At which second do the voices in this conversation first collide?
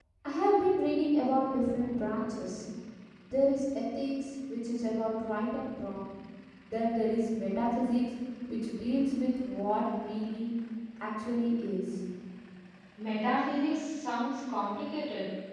none

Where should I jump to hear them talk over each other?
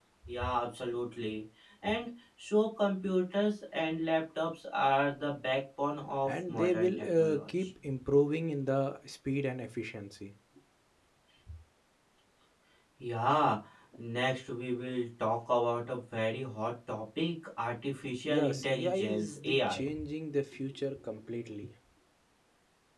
6.3 s

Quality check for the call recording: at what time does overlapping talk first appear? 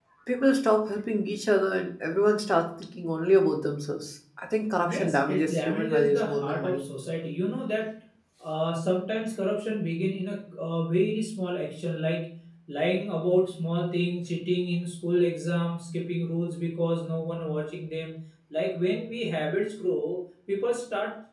4.8 s

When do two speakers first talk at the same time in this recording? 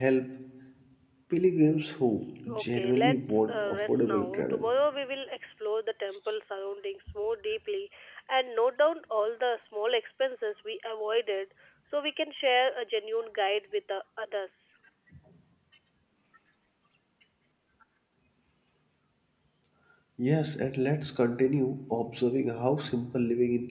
2.5 s

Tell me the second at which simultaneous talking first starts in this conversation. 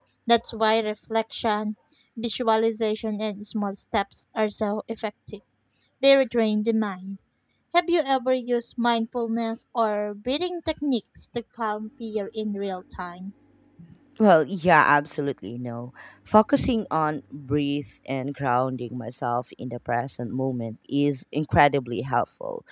none

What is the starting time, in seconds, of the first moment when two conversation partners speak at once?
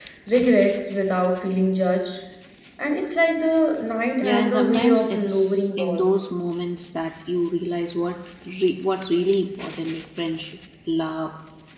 4.2 s

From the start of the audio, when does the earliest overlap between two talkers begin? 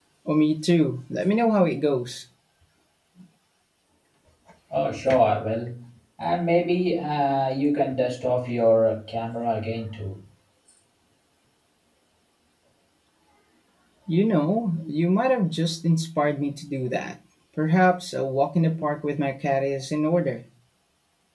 none

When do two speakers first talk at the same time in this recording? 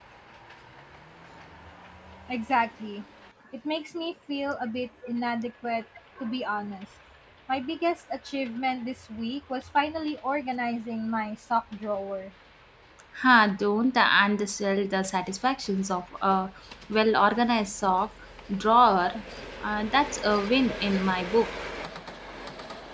none

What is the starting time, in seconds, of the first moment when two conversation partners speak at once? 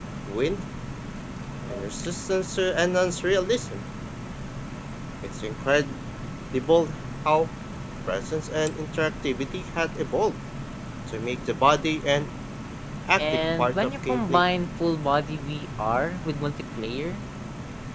13.2 s

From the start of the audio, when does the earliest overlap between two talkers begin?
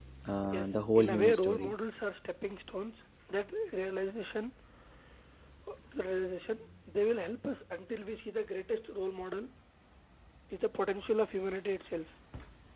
0.5 s

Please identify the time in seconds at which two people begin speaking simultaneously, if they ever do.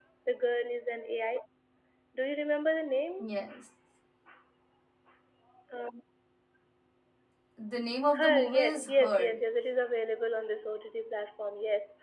8.1 s

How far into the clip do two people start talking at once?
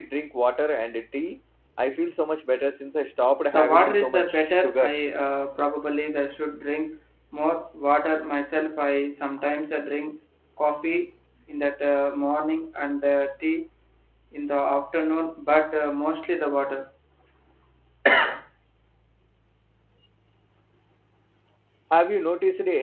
3.5 s

